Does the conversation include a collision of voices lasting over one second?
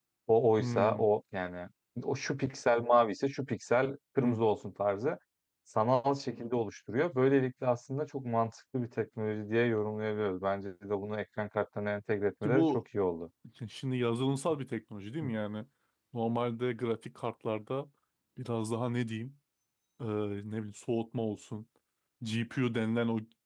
No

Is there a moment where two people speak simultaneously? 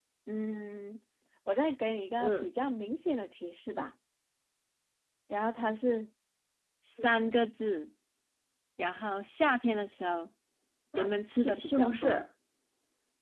Yes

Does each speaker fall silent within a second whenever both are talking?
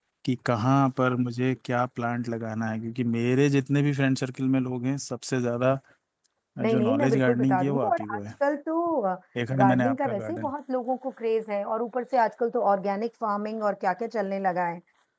No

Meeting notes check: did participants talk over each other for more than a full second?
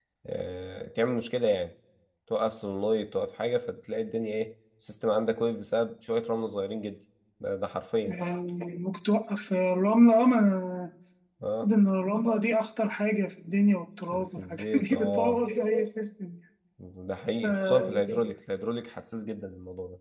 Yes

